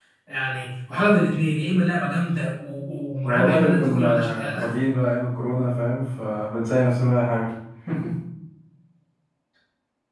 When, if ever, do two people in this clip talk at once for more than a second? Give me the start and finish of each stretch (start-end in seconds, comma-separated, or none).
3.2-4.7